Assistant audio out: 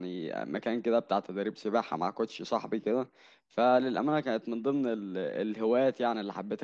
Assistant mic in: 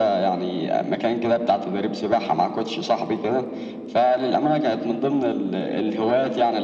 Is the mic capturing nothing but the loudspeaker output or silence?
Yes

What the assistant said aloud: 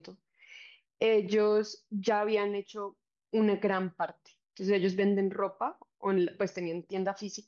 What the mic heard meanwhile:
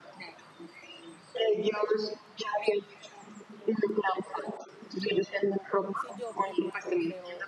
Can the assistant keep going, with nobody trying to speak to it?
No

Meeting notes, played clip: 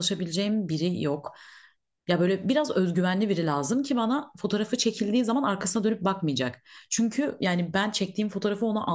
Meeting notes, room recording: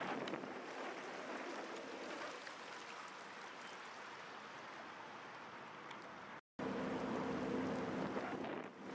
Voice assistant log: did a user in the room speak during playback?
No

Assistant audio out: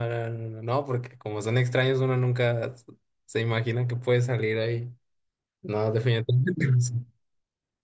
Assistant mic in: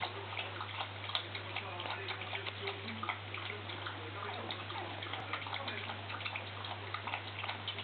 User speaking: No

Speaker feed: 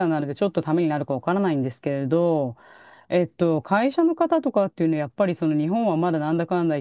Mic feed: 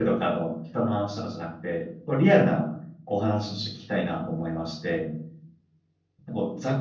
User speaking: Yes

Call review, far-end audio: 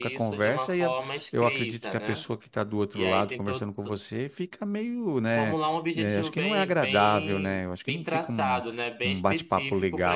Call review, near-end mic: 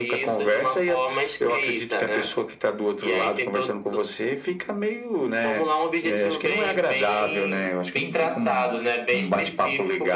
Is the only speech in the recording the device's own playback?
Yes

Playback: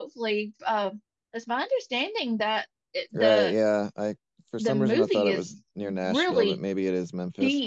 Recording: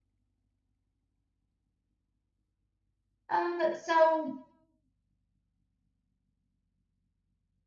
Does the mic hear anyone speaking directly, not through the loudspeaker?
Yes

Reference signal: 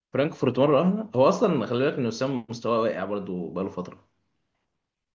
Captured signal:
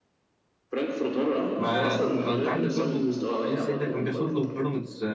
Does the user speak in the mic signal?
Yes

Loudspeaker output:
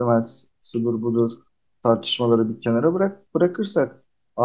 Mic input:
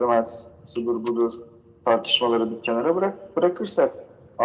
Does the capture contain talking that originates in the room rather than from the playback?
No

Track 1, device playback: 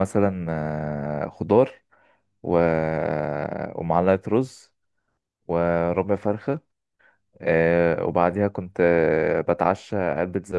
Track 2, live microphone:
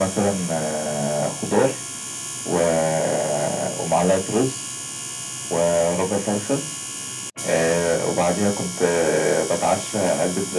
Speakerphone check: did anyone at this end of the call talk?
No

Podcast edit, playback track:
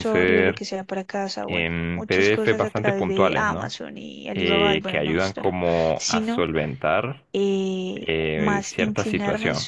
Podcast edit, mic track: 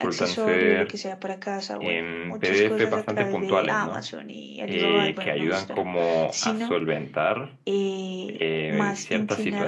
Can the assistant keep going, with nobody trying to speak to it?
Yes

